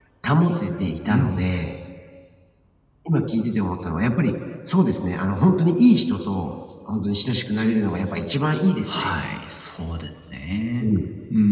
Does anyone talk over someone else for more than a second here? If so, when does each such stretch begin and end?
none

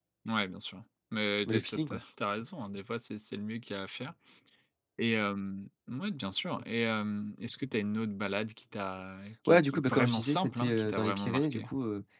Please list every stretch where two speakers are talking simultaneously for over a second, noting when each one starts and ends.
9.5-11.7

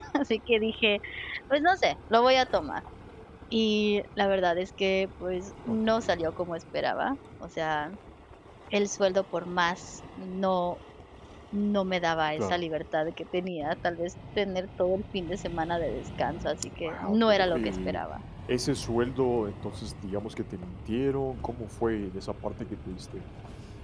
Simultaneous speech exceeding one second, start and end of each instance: 16.8-18.0

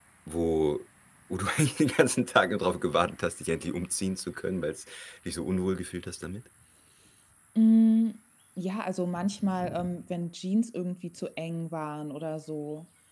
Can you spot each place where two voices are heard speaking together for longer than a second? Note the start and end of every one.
none

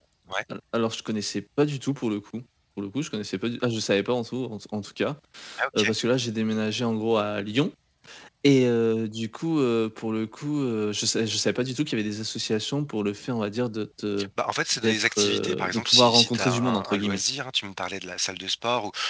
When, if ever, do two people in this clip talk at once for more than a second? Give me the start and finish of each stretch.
14.8-17.2

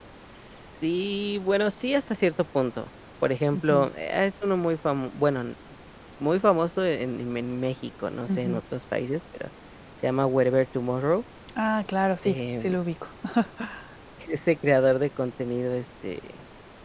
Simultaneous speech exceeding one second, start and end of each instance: none

